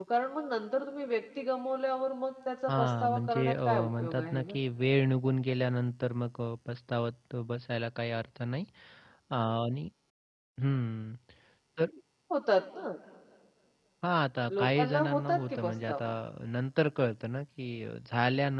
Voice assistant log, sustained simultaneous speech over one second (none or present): present